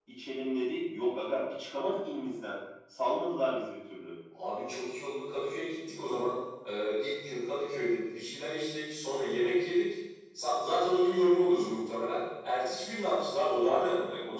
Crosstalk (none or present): none